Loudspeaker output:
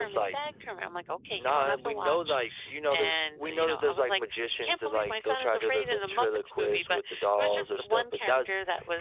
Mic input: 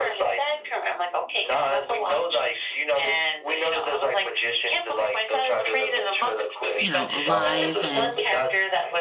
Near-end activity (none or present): present